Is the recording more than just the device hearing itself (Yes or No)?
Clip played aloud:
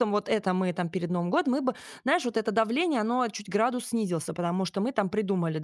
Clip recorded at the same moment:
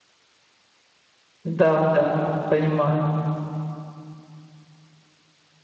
Yes